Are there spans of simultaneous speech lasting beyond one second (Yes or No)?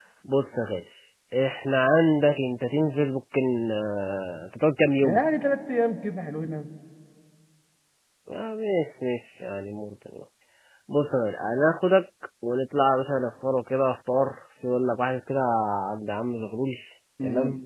No